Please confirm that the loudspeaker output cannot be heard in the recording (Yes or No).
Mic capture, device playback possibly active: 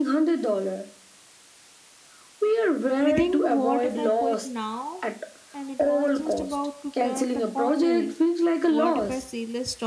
No